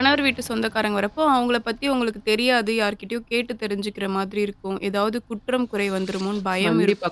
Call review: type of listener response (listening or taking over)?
taking over